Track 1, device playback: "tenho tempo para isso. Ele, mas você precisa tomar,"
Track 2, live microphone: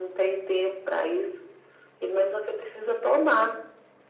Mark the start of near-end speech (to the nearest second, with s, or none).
none